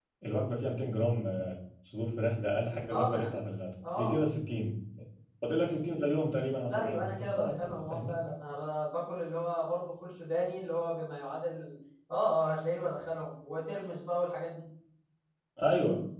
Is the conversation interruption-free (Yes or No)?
No